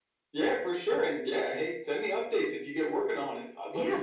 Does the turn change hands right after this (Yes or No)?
Yes